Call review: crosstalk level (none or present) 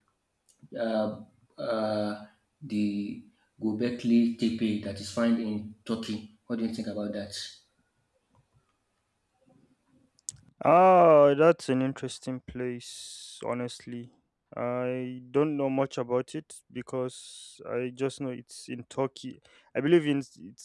none